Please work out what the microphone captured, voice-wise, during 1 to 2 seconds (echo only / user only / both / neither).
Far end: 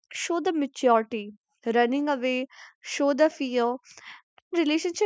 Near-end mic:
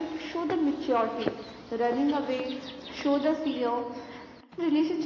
echo only